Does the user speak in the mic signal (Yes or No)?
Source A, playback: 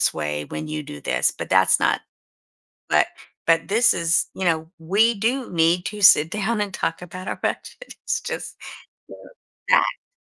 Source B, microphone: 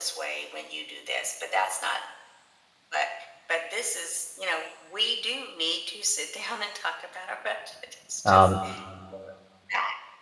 Yes